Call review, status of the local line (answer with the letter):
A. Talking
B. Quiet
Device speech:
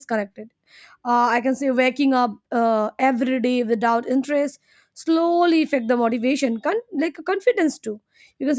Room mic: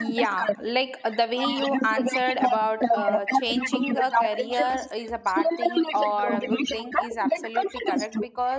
A